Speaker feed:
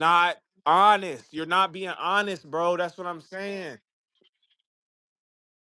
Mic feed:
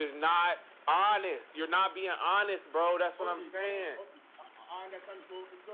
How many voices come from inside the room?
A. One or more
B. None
A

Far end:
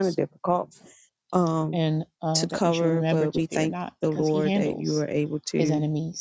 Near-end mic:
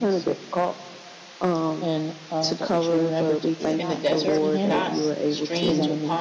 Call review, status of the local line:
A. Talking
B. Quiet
A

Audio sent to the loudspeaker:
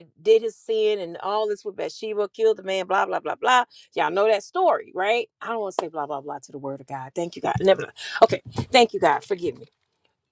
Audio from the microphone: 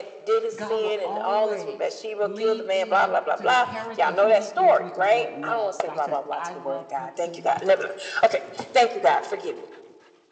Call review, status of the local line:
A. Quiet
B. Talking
B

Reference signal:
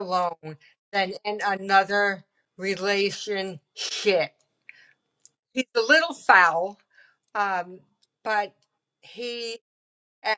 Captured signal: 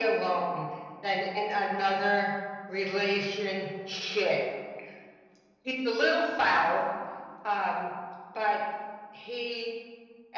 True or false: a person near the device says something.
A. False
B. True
A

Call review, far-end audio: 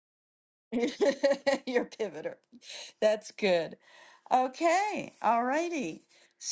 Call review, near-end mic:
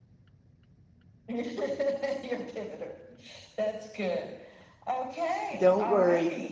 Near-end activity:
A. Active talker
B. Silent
A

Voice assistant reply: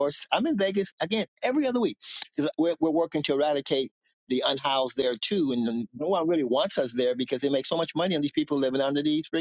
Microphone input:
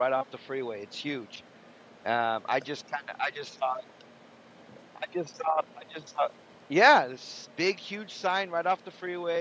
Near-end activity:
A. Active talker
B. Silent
A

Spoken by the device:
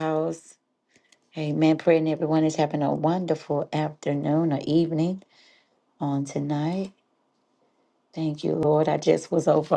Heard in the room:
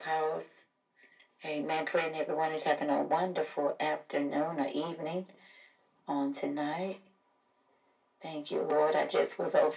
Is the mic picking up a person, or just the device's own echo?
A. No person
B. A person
A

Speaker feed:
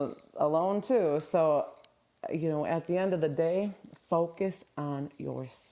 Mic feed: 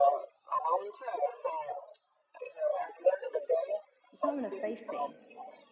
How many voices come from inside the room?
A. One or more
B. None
A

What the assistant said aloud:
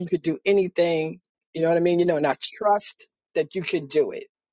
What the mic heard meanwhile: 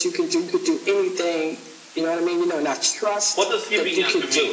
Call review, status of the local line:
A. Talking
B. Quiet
A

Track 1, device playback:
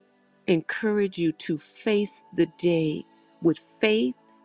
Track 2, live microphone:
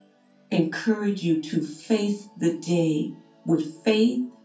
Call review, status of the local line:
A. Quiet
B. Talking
A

